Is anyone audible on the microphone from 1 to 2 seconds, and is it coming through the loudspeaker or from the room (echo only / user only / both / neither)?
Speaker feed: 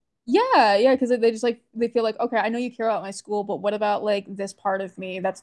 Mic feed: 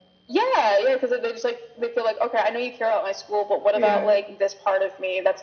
echo only